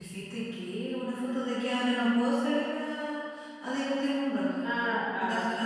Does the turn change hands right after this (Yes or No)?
Yes